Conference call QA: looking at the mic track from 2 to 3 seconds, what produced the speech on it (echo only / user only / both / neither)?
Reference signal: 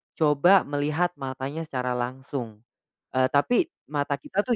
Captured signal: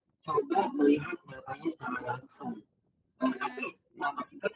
echo only